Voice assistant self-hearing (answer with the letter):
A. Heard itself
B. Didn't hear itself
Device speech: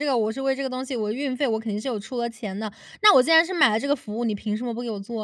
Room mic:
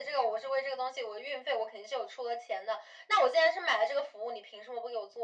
A